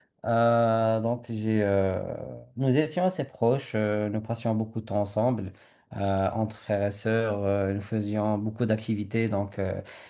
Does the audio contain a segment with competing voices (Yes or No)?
No